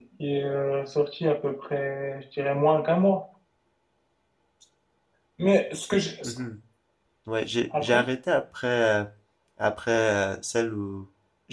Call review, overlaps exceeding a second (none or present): none